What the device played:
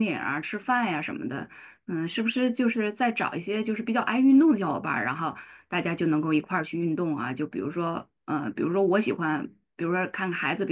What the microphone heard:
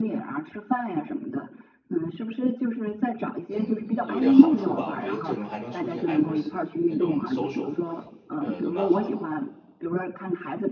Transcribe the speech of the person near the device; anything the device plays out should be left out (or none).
嗯有点好处吧。我觉得这种还能促进孩子的那种 social，呃，都蛮好的。